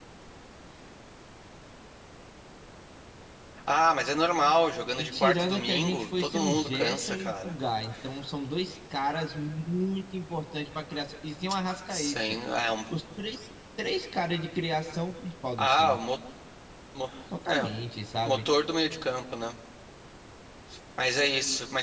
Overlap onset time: 5.0 s

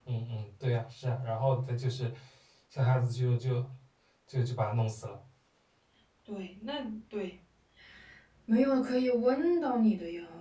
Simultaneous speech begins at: none

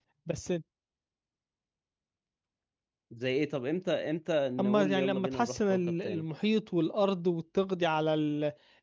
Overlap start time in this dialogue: 4.6 s

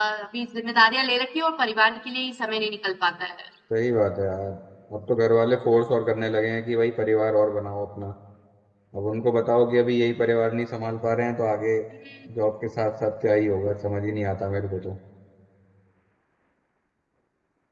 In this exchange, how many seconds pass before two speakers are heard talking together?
none

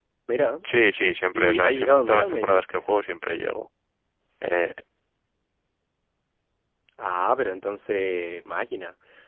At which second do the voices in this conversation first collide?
1.3 s

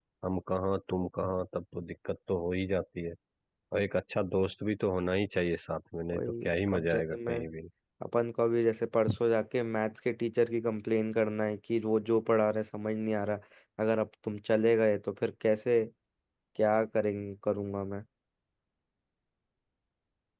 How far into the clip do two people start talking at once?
6.1 s

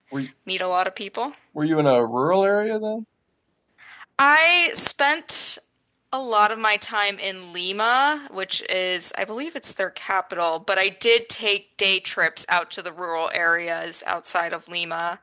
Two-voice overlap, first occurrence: none

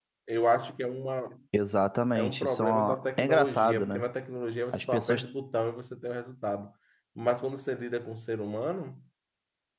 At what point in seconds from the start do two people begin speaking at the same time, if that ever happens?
2.1 s

